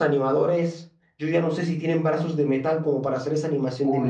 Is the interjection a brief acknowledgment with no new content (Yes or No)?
No